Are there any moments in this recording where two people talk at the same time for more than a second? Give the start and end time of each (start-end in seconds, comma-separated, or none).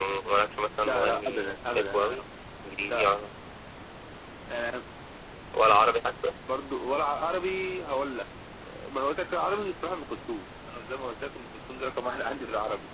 0.8-2.1